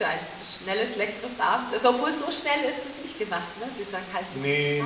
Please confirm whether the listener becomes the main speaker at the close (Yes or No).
Yes